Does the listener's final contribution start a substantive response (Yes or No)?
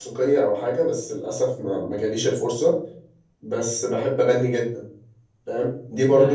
No